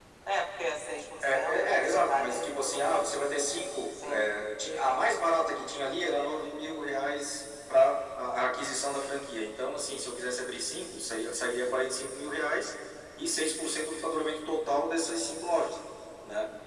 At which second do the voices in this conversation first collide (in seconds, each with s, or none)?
1.2 s